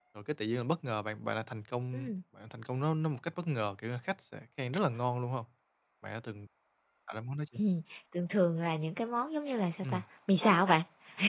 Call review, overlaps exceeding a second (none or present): none